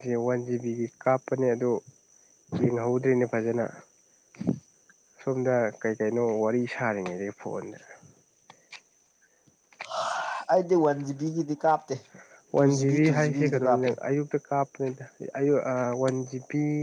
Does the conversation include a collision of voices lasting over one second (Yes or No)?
Yes